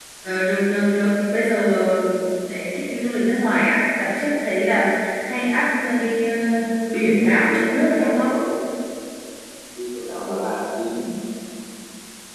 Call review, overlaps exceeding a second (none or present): present